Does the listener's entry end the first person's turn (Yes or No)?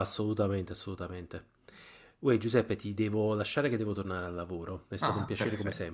Yes